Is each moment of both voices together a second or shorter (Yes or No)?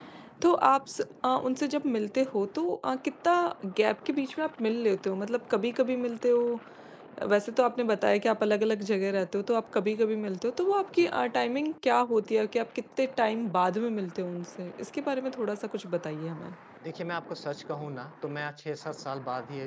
Yes